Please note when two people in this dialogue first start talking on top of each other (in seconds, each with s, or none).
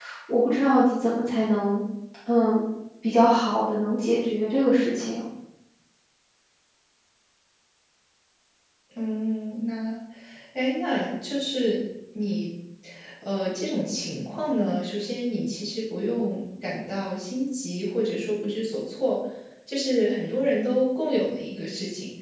none